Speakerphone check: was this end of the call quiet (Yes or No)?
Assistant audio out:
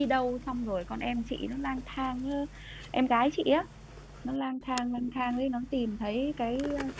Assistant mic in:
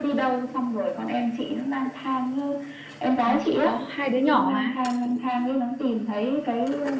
No